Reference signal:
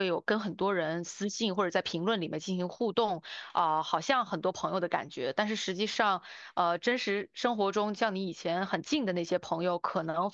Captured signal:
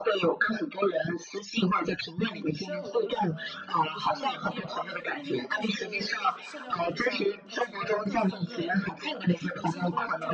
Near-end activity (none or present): present